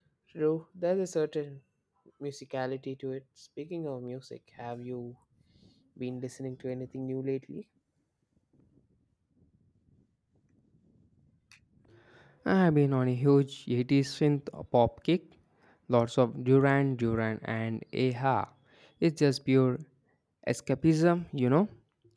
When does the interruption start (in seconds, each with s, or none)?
none